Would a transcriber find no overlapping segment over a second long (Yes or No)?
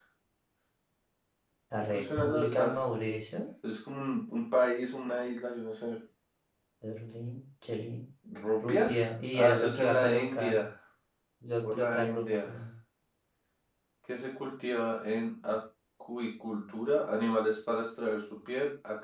No